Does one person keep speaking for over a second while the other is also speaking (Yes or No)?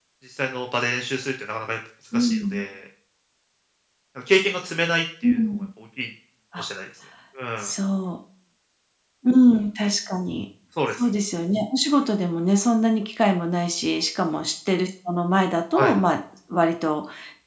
No